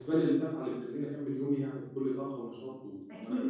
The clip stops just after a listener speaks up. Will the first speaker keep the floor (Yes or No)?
No